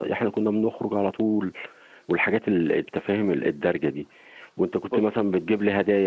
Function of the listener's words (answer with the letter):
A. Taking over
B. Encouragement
B